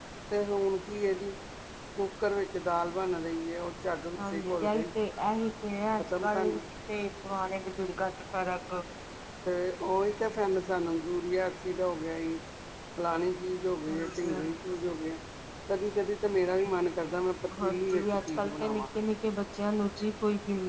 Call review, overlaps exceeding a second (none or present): present